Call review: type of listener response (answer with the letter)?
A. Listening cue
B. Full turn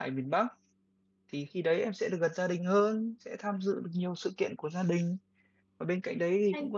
A